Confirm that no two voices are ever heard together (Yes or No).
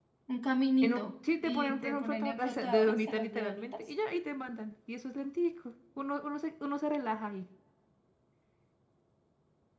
No